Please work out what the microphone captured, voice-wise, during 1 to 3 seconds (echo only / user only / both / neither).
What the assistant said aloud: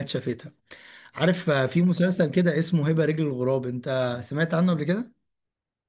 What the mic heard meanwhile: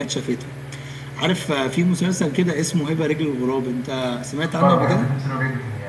echo only